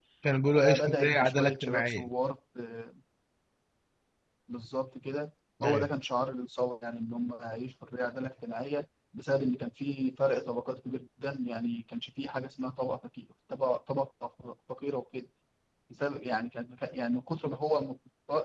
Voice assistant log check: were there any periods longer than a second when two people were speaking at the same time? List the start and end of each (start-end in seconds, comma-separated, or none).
0.6-2.1